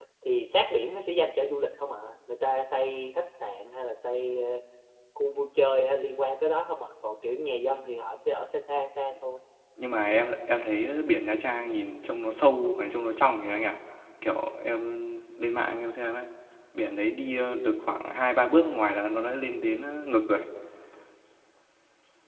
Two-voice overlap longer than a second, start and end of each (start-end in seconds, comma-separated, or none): none